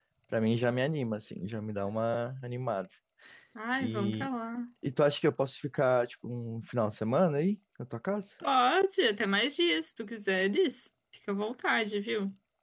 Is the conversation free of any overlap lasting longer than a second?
Yes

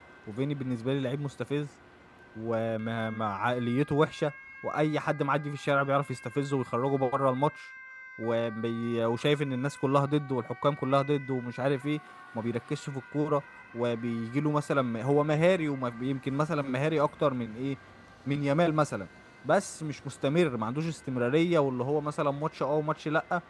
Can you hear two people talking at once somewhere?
No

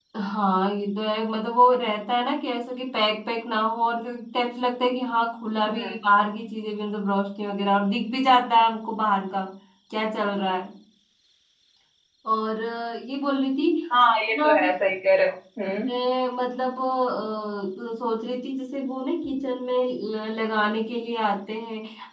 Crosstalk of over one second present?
No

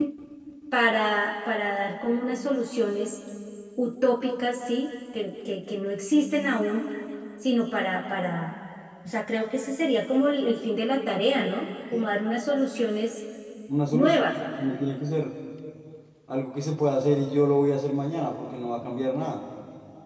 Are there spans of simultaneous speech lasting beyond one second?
No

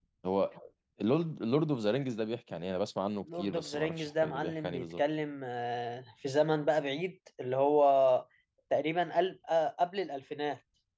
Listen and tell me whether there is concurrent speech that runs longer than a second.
Yes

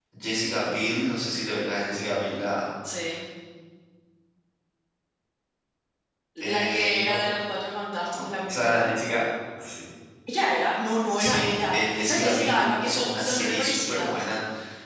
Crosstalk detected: Yes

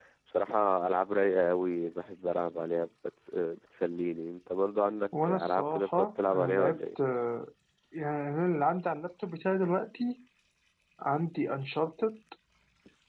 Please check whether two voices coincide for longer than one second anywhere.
Yes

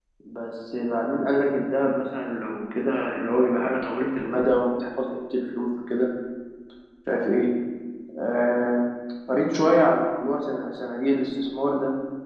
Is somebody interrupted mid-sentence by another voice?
No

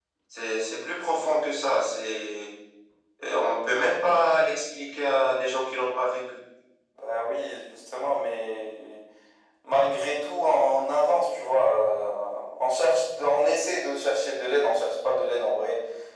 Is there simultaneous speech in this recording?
No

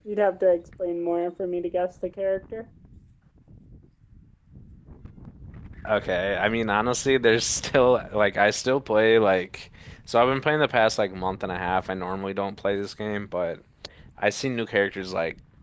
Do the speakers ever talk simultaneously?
No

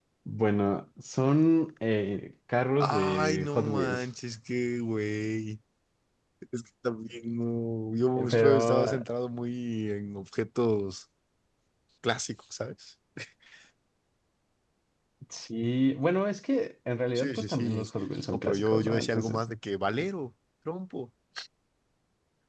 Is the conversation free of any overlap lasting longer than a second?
No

